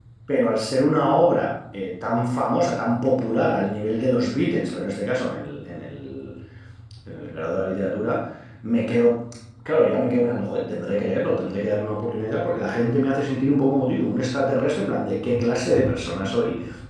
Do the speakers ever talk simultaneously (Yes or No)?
No